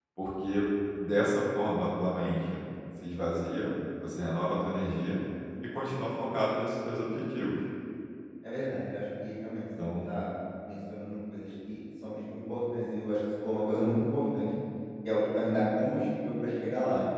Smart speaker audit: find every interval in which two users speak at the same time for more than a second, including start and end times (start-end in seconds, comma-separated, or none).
none